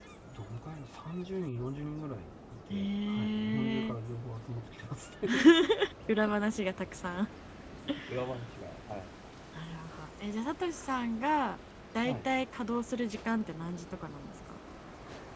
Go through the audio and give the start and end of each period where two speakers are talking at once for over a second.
2.7-4.0

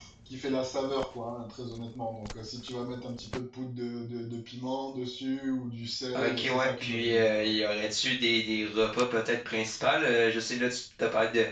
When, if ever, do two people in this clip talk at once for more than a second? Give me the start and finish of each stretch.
6.2-7.5

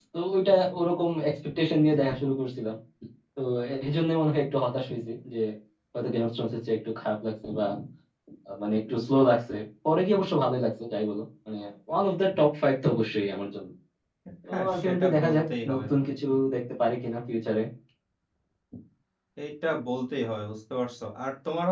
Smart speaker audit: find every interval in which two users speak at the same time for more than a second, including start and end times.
14.5-15.8

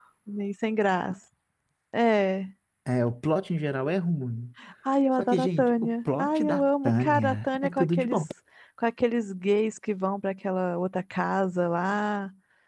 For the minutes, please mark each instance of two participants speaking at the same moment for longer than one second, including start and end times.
5.2-8.2

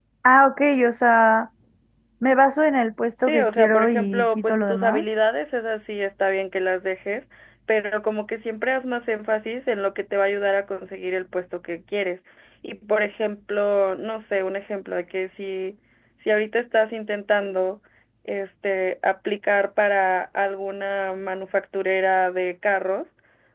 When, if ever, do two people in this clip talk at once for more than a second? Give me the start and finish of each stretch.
3.2-5.0

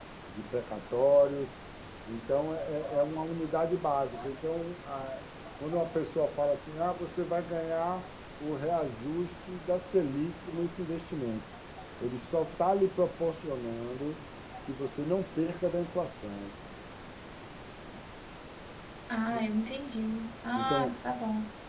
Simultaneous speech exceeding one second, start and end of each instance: none

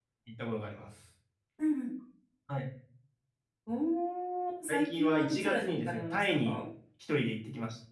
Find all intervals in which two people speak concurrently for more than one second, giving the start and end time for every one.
4.7-6.6

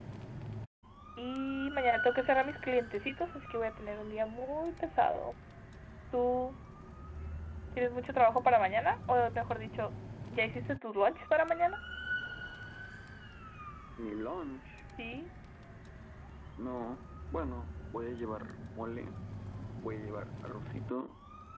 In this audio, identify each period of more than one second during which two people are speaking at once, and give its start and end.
none

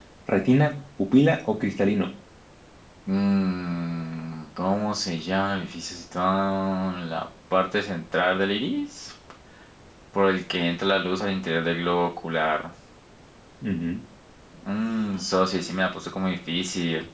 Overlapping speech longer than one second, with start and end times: none

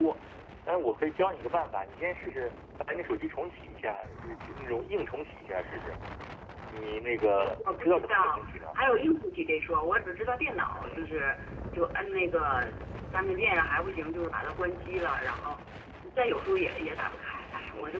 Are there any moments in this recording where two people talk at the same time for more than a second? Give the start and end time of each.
7.4-8.6

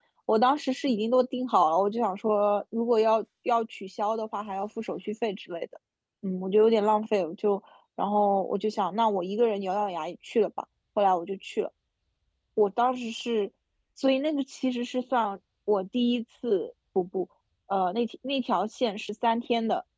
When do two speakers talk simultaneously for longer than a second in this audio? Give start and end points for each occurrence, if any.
none

